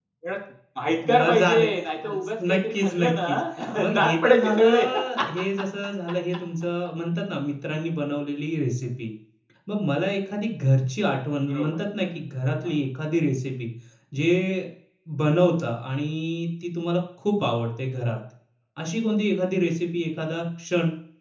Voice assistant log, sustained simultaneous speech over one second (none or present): present